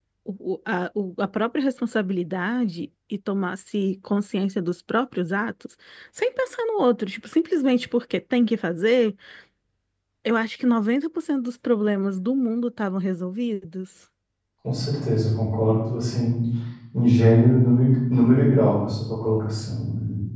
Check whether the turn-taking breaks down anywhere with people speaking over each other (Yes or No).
No